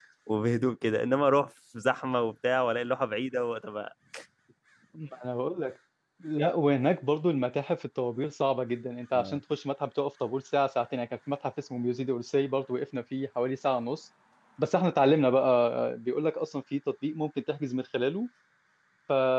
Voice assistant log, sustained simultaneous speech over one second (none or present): none